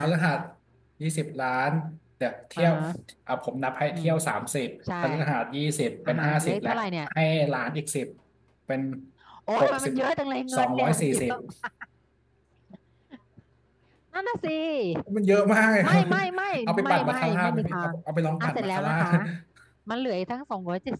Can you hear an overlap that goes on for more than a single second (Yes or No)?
Yes